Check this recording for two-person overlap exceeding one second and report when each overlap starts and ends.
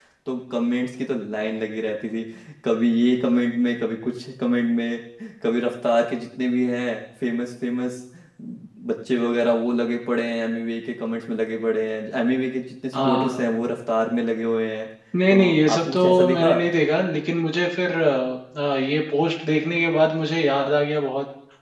15.3-16.6

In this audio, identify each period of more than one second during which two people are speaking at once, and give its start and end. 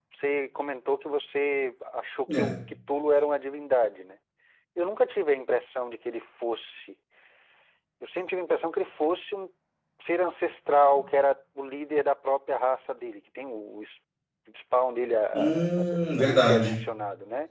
15.3-16.8

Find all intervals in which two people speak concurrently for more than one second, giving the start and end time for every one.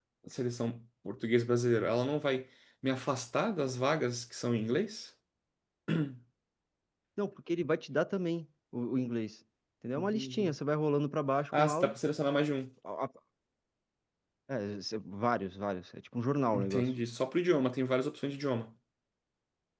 none

